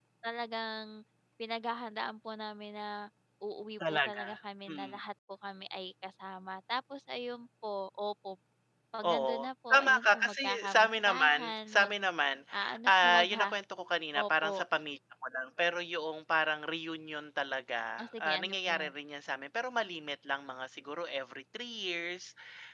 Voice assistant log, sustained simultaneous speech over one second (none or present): present